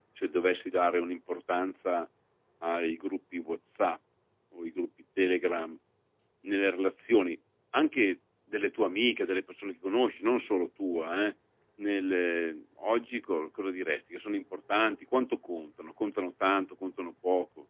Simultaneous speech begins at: none

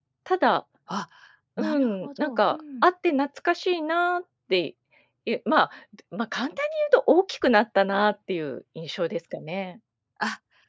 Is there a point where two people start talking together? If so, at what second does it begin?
2 s

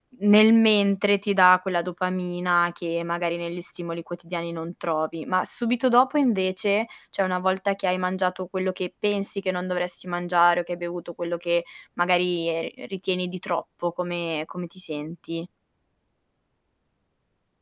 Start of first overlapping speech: none

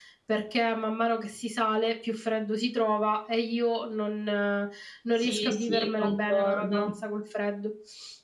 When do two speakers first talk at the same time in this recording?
5 s

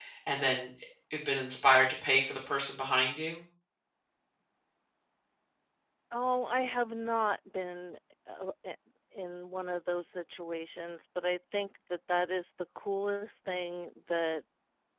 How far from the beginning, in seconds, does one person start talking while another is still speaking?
none

